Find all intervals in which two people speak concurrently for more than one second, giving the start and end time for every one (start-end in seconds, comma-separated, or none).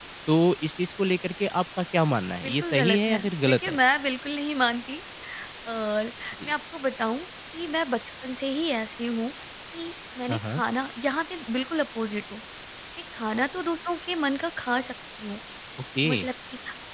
2.4-3.8